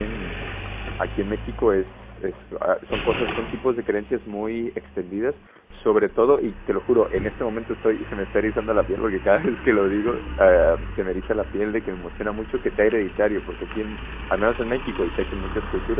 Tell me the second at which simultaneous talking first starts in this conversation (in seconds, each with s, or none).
none